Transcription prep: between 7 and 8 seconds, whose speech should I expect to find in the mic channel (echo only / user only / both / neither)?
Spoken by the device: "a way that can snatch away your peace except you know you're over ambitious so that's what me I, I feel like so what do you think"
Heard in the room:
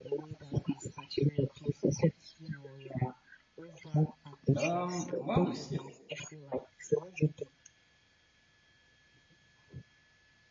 echo only